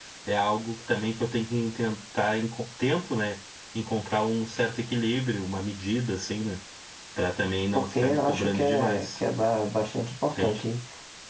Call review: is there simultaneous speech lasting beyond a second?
Yes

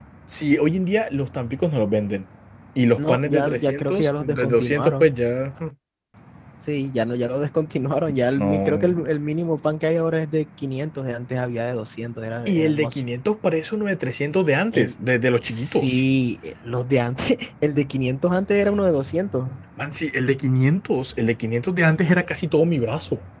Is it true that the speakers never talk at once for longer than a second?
No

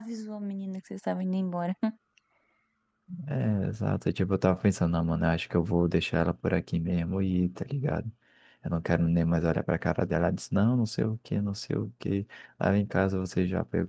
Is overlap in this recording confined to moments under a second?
Yes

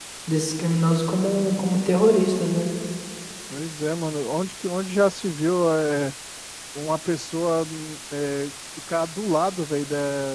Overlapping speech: No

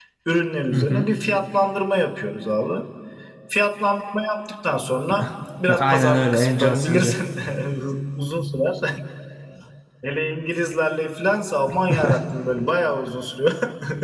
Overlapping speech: Yes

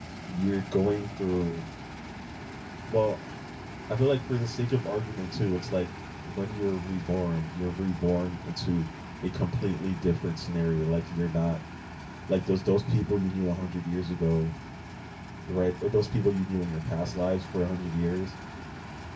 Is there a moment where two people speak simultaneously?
No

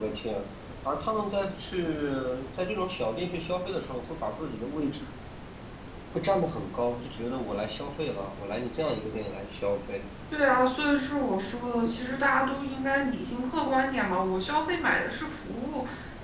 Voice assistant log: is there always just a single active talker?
Yes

